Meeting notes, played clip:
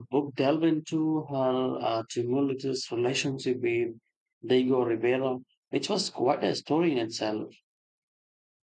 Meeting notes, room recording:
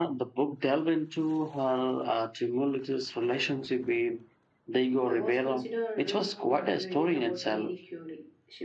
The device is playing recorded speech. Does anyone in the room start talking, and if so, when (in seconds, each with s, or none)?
5.0 s